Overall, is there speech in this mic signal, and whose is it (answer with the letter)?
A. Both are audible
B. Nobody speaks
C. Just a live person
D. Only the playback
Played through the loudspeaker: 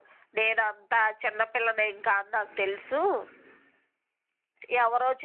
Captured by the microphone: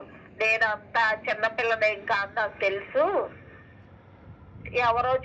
D